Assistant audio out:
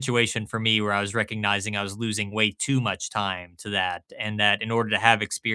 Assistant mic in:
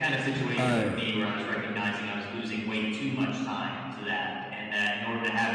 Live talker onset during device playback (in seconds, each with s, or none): 0.6 s